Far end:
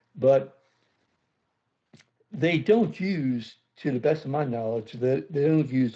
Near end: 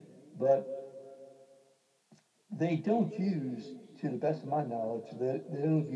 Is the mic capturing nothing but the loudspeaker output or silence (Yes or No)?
Yes